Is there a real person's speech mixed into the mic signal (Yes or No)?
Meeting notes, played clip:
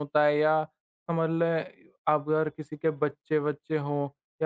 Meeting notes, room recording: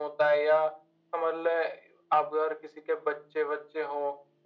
No